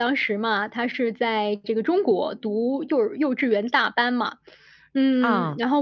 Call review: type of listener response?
listening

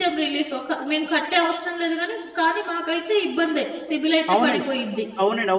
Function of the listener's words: taking over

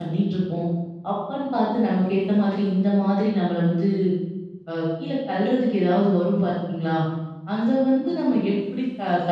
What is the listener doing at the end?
listening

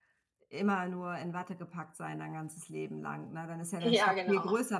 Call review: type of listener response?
listening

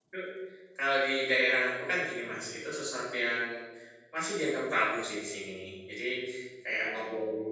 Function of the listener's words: listening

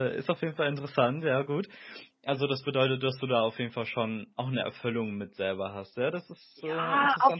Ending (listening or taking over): taking over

